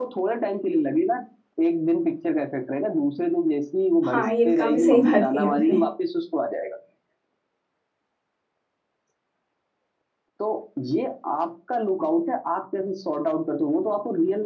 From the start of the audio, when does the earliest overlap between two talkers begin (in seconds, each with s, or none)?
4.0 s